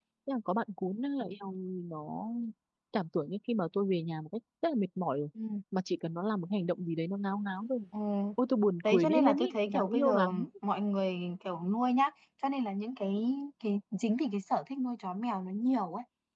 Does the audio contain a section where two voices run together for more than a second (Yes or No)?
Yes